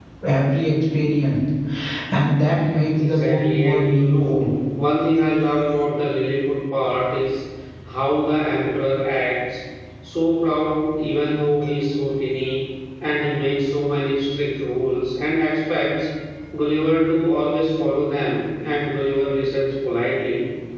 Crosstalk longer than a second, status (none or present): present